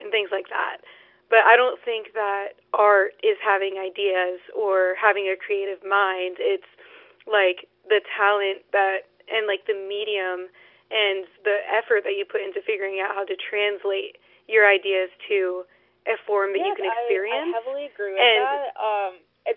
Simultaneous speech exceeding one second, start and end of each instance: 16.4-17.7

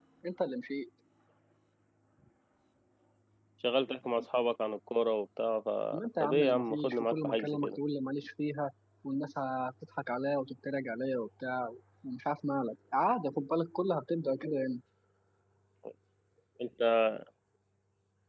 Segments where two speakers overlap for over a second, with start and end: 6.2-7.8

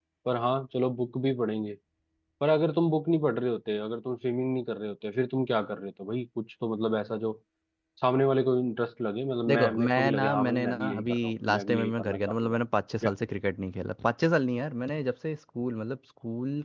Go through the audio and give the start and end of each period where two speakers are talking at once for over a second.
9.5-12.6

